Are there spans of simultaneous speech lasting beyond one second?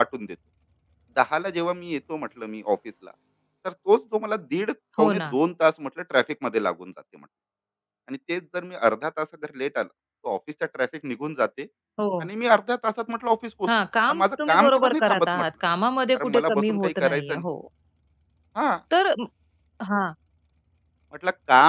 Yes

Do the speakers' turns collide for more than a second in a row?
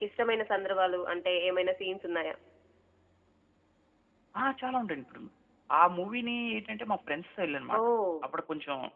No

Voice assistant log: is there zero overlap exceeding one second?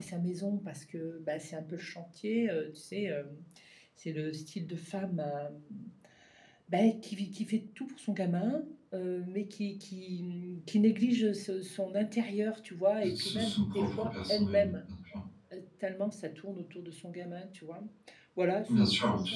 No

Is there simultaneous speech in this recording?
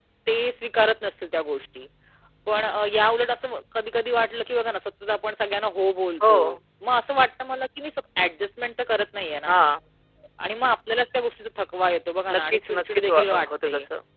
Yes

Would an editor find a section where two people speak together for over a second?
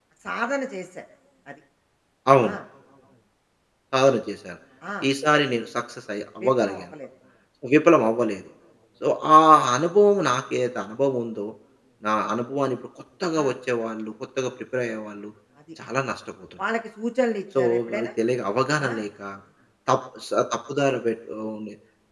No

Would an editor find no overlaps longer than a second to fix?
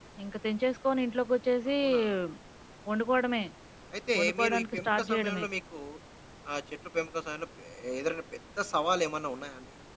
No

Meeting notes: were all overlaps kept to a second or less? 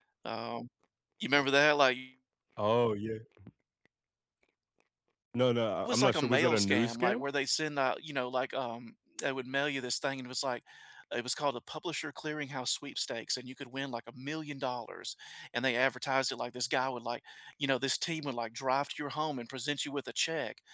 No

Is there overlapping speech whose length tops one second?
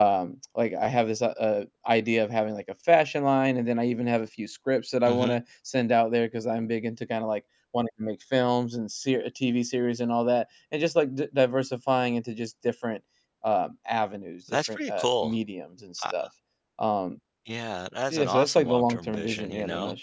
Yes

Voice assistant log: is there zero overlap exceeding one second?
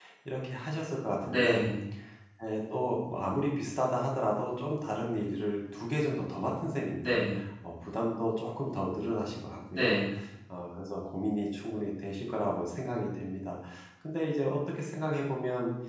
Yes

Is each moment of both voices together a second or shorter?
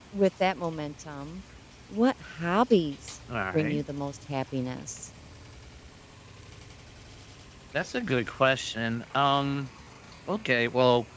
Yes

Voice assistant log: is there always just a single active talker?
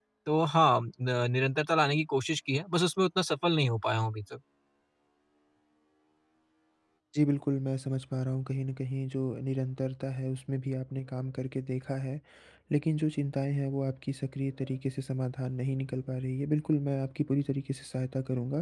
Yes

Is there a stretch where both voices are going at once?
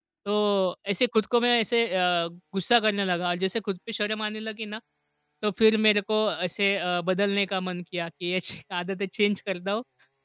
No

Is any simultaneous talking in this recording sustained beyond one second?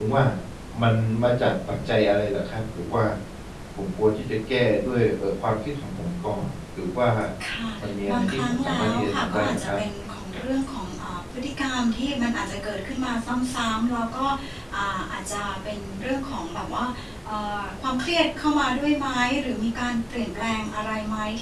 Yes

